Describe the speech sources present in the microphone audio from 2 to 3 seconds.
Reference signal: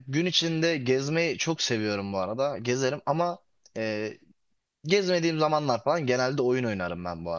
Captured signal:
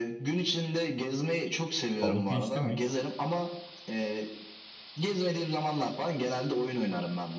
both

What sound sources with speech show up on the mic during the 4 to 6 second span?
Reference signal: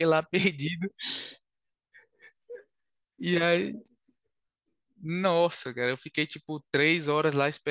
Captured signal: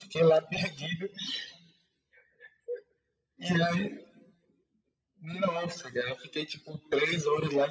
echo only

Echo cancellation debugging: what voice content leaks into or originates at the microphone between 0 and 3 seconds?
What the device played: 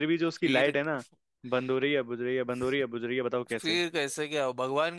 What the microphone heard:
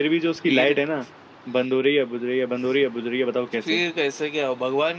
echo only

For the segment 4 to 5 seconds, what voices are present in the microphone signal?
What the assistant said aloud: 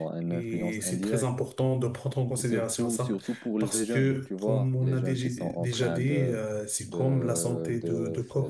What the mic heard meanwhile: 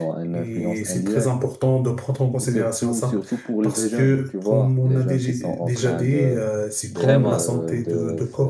echo only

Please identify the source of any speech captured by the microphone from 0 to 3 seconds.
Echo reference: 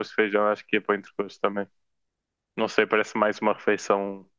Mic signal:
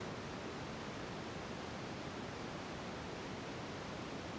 neither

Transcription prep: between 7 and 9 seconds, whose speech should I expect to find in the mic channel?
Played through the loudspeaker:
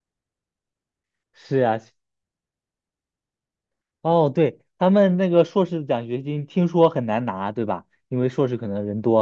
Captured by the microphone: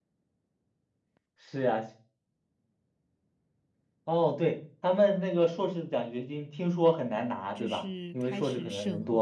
both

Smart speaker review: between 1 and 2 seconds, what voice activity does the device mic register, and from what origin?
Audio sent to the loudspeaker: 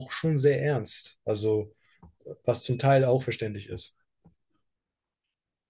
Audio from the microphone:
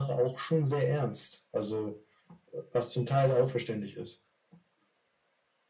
echo only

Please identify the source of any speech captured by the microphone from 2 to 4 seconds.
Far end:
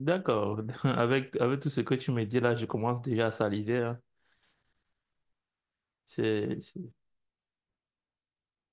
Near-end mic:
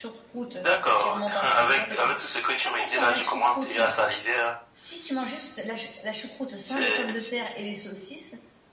both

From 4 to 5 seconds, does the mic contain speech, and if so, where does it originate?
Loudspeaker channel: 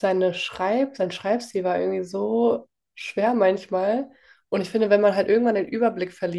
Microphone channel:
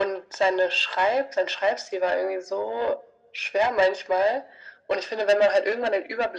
echo only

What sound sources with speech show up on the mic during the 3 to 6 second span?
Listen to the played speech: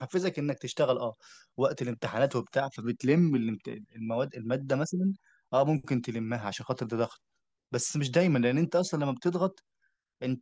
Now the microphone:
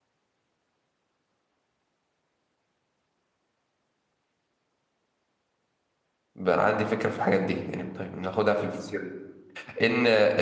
neither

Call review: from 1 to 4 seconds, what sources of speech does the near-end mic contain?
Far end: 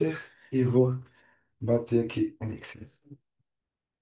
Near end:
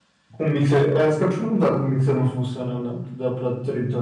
user only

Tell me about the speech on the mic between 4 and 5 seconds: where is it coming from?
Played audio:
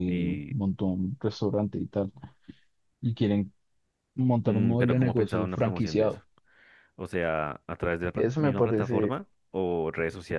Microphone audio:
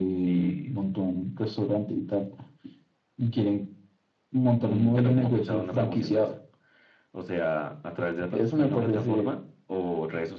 echo only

